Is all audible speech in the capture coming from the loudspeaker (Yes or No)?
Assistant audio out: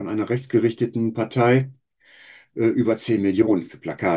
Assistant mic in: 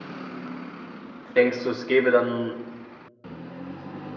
No